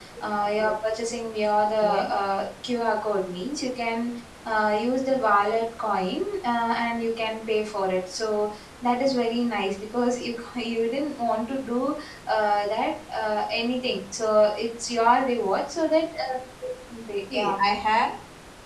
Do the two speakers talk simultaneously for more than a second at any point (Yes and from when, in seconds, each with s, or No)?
No